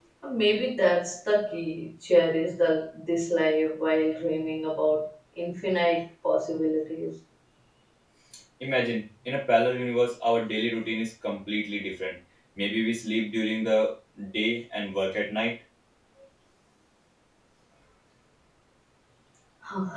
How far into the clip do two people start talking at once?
none

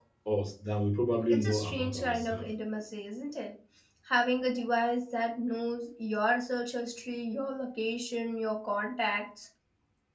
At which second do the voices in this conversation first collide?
1 s

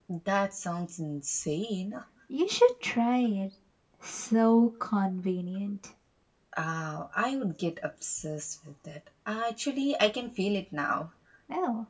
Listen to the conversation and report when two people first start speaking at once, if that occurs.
none

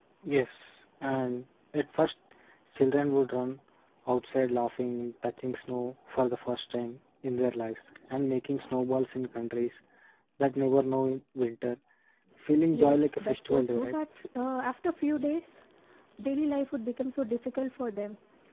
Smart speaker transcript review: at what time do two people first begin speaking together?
13 s

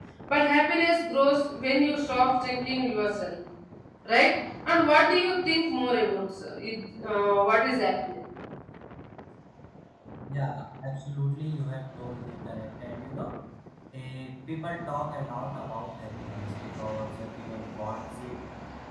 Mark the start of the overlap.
none

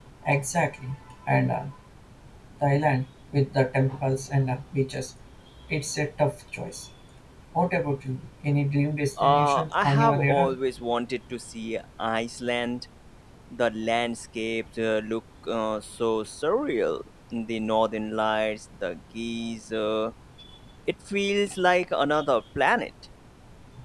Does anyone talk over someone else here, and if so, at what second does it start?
9 s

